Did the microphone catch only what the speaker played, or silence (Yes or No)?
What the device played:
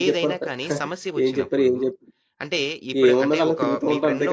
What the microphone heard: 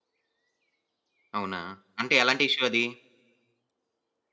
No